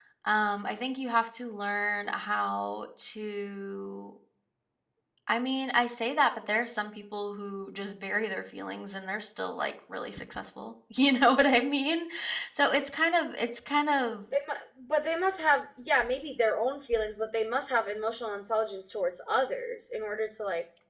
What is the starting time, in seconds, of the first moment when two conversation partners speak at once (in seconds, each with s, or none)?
none